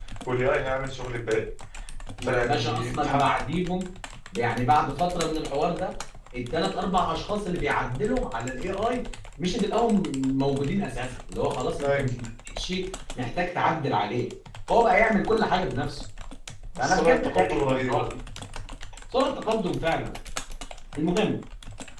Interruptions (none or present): present